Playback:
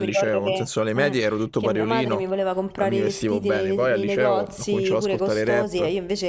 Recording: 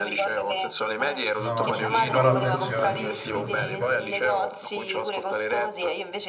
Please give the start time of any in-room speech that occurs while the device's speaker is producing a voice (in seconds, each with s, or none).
1.4 s